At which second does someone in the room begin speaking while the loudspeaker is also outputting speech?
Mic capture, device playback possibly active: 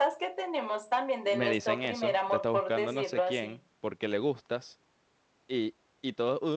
1 s

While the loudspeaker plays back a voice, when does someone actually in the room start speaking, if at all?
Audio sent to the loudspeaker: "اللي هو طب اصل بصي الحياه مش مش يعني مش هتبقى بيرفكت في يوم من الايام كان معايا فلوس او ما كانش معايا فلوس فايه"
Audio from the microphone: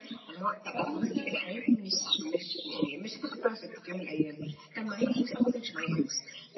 1 s

